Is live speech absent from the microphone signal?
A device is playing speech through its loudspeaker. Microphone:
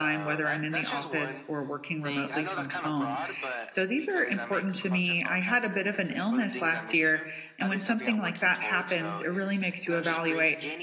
No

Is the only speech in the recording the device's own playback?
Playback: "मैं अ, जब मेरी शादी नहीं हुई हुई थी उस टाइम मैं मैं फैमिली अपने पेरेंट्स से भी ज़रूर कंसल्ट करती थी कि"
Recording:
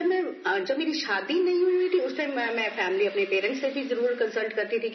Yes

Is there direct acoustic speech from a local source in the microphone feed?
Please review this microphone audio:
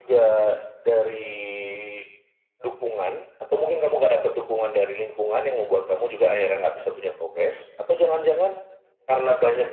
No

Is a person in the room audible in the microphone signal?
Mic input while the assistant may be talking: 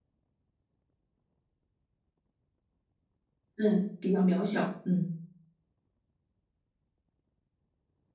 Yes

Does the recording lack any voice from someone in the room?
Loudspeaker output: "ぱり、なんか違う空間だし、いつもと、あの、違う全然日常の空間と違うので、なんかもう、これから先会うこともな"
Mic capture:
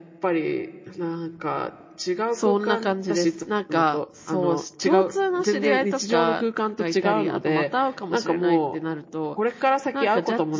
No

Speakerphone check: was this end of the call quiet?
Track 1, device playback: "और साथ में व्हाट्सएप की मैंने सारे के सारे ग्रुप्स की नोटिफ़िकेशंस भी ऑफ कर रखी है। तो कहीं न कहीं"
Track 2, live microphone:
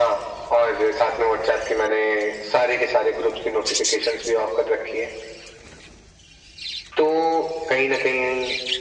Yes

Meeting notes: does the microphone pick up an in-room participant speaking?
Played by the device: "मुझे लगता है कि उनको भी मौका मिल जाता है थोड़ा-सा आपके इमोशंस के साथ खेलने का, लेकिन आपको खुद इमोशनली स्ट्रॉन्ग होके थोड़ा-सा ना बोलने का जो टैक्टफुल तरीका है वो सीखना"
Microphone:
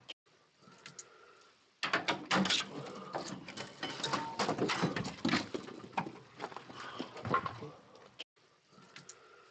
No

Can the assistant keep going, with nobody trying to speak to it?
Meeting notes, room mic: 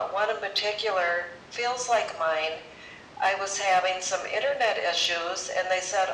Yes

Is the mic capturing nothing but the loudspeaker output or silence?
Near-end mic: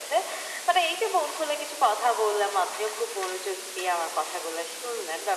Yes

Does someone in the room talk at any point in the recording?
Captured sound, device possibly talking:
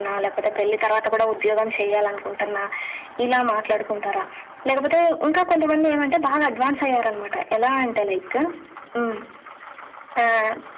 No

